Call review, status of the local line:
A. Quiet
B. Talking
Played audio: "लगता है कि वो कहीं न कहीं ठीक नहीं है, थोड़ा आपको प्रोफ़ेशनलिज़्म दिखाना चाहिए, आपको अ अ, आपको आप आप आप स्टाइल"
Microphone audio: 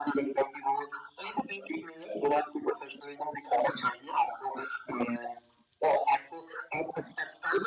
A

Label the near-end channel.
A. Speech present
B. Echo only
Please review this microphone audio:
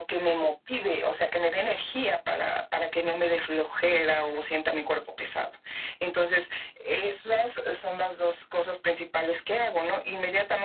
B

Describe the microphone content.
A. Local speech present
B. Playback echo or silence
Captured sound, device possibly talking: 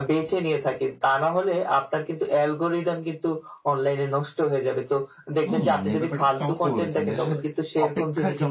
A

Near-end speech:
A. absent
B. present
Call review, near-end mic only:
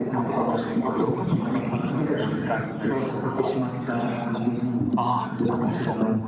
B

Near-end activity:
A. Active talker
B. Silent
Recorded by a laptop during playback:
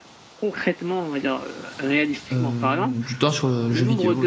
A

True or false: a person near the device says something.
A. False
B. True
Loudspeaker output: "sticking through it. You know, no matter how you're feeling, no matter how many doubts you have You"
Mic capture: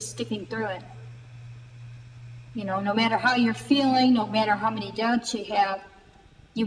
A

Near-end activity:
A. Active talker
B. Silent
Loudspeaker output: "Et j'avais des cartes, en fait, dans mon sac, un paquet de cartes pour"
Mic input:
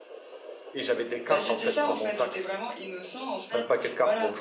A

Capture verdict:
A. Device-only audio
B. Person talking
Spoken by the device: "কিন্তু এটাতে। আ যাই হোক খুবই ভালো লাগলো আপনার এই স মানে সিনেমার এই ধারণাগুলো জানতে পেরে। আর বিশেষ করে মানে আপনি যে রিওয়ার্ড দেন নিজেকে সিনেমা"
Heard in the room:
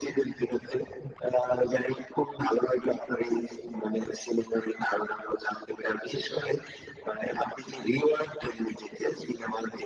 A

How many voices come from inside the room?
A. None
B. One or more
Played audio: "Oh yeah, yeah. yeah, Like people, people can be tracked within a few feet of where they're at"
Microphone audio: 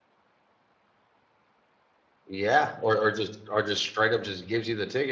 B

